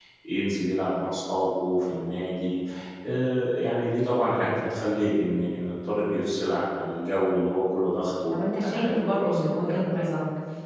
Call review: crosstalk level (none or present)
present